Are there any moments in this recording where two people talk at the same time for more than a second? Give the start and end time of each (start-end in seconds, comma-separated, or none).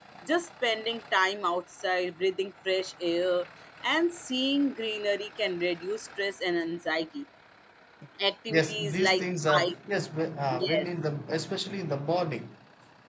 8.5-9.7